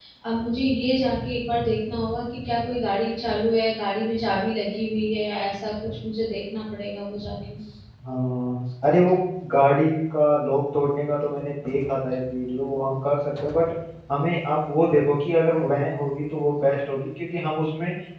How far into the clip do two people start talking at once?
none

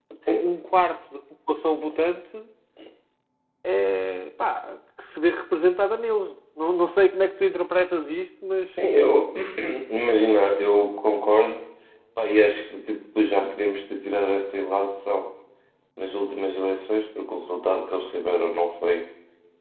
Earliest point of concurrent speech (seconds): none

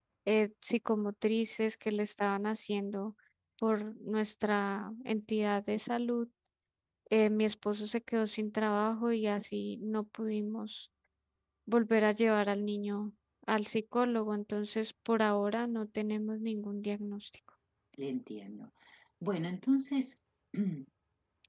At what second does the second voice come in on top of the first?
none

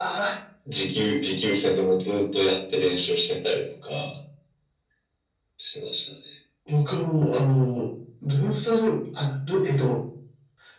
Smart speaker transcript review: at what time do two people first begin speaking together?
none

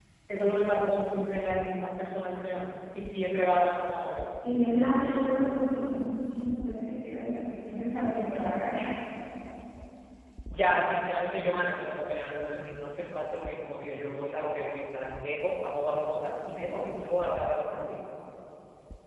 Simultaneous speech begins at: none

